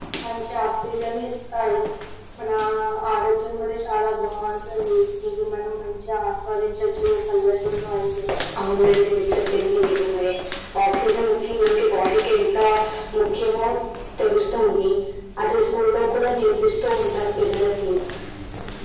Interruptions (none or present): none